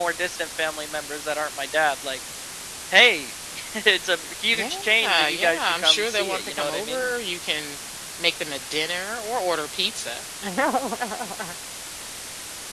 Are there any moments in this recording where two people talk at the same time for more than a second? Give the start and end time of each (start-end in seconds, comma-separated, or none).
4.5-7.0